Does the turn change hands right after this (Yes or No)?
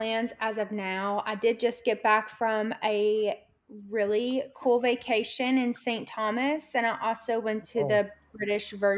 No